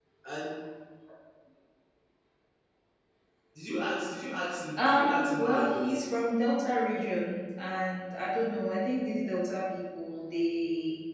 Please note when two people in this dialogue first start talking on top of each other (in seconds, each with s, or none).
4.8 s